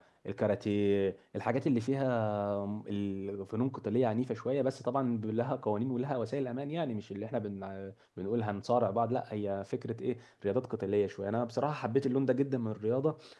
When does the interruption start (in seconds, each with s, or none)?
none